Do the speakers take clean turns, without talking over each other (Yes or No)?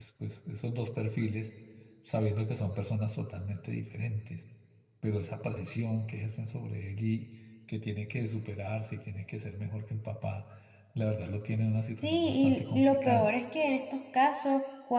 No